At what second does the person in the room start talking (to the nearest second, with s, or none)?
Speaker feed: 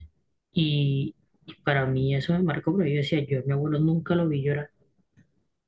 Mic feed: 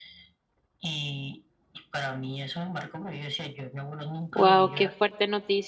4 s